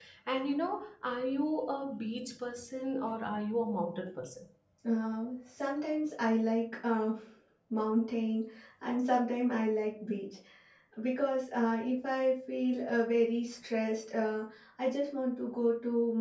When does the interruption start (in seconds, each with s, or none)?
none